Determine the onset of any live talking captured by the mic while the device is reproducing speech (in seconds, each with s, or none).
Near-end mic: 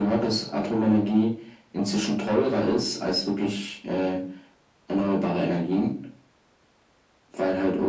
none